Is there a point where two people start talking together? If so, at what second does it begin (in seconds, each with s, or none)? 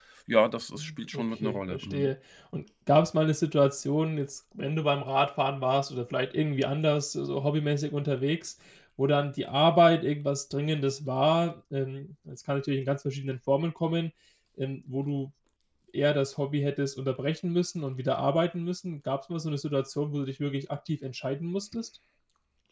0.8 s